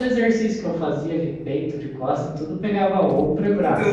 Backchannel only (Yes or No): No